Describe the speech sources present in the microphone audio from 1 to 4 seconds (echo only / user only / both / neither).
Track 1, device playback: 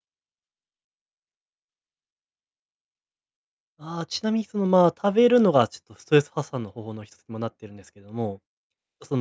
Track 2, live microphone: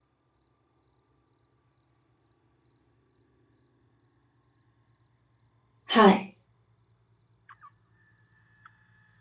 neither